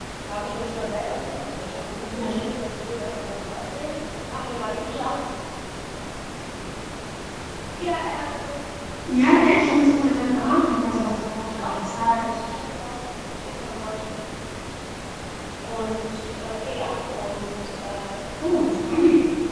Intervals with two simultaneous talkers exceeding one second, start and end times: 9.3-12.4

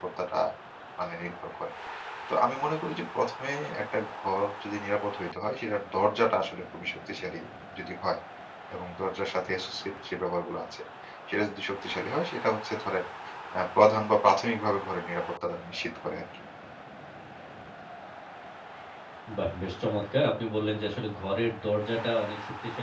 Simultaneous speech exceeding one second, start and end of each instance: none

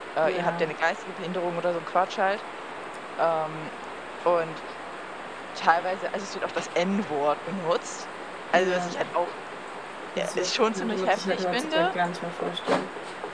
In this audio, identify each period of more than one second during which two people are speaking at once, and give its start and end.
10.2-11.9

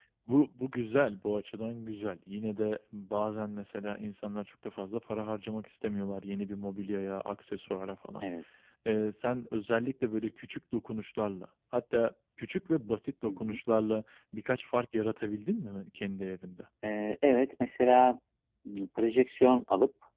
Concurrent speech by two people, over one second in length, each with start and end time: none

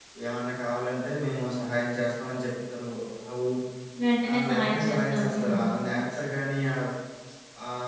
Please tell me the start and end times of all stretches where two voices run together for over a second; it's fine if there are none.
4.3-5.5

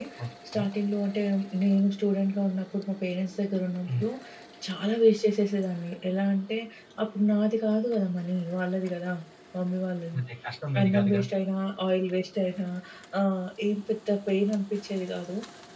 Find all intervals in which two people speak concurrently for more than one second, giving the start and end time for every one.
none

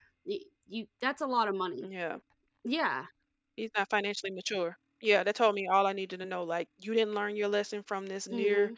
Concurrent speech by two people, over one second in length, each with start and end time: none

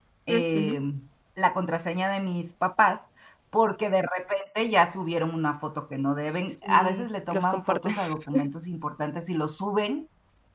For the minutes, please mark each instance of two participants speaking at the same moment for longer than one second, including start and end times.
6.5-7.9

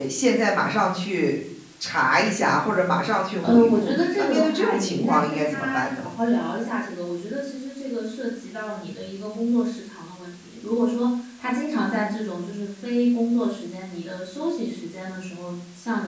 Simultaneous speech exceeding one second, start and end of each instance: 3.4-6.1

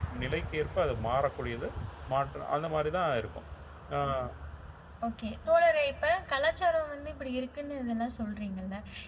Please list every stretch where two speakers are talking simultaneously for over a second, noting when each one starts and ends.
none

